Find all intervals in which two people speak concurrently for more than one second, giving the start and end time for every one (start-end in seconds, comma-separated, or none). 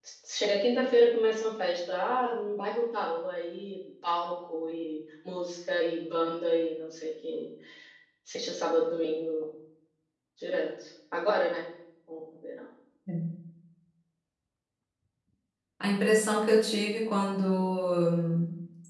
none